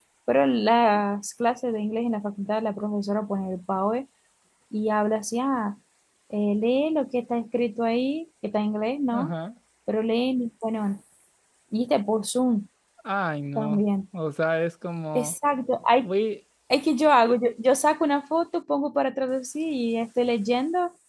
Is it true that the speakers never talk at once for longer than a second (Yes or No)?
Yes